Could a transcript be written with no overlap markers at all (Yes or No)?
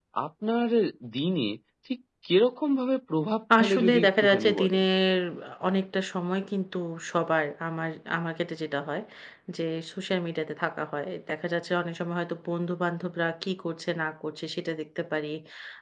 No